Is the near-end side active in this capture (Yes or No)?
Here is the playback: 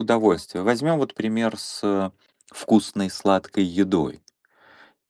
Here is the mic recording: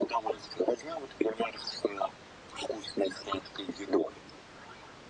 No